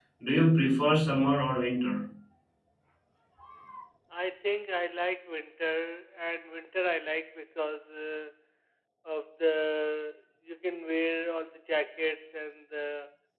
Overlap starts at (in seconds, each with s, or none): none